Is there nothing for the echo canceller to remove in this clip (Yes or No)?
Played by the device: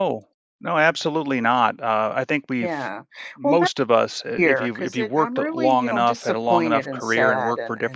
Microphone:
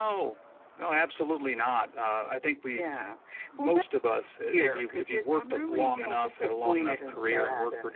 No